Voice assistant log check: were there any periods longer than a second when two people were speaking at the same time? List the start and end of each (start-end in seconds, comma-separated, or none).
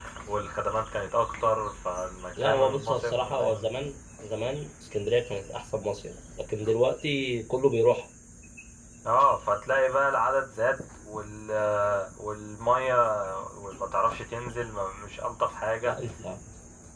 2.4-3.7